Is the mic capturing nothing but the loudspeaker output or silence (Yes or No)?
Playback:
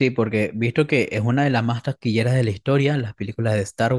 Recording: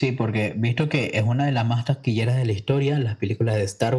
Yes